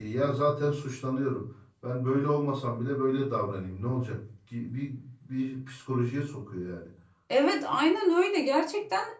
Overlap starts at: none

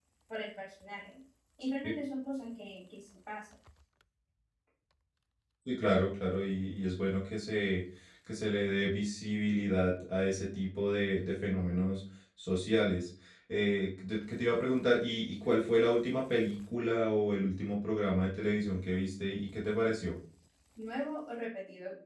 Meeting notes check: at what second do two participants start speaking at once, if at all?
none

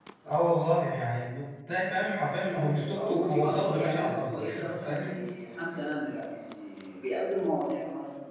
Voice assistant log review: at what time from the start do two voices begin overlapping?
2.5 s

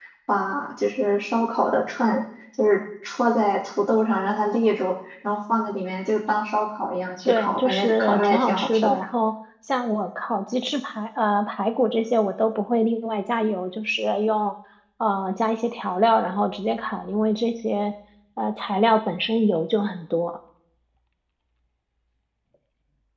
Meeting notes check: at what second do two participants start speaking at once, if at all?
7.3 s

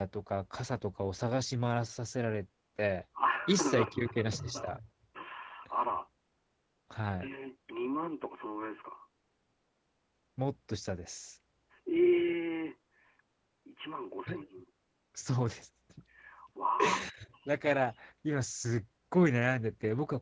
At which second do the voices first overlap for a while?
3.5 s

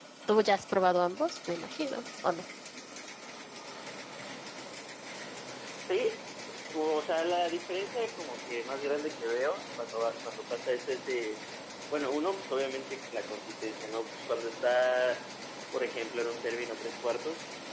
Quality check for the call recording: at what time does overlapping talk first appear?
none

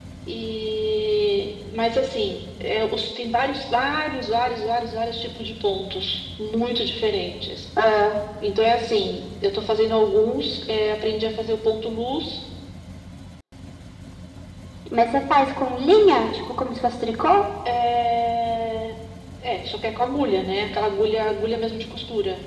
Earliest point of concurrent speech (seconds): none

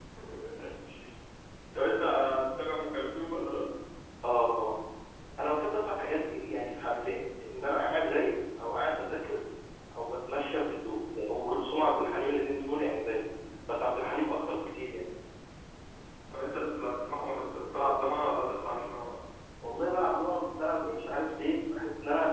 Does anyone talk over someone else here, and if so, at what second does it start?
none

